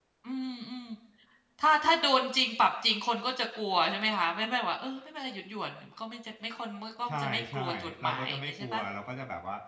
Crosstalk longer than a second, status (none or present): present